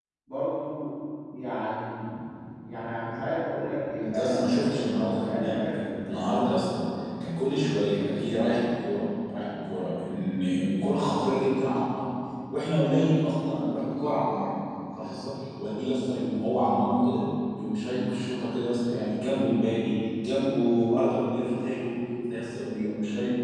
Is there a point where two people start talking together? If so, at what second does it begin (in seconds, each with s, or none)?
4.0 s